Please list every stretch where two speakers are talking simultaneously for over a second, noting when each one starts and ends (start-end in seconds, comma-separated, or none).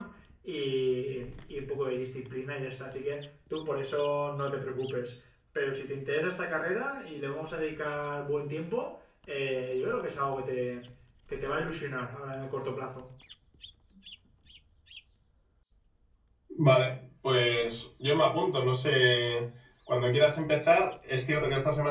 none